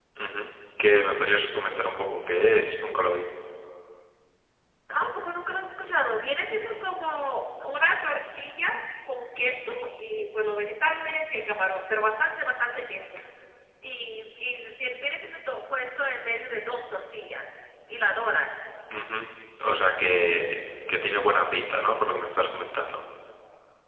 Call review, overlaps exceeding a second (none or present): none